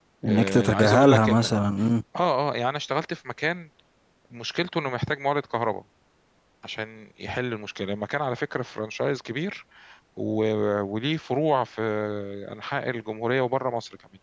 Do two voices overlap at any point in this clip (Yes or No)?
Yes